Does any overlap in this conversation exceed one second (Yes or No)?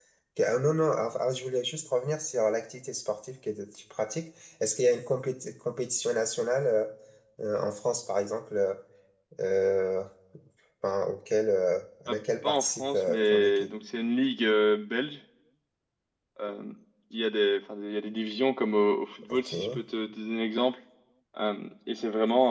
Yes